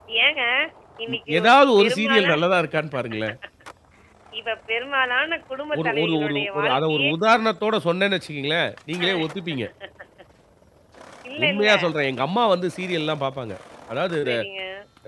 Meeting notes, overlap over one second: present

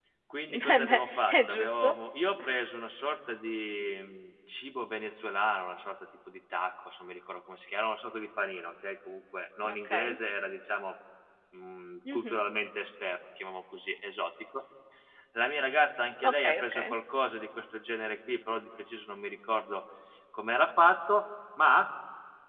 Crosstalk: present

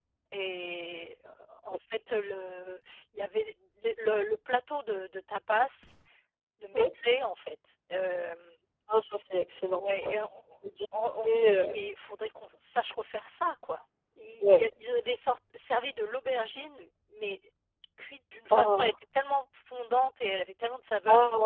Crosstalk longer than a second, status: none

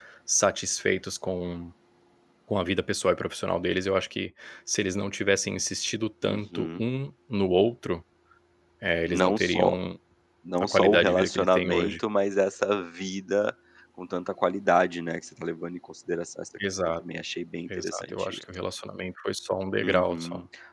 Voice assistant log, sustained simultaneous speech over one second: present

